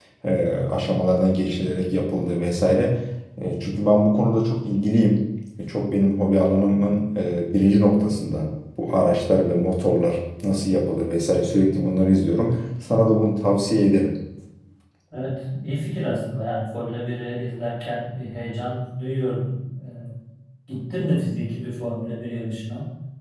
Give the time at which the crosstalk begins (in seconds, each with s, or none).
none